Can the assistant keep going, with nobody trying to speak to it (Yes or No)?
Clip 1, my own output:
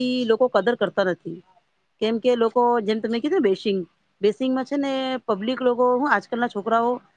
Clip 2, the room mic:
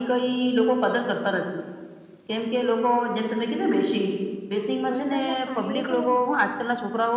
No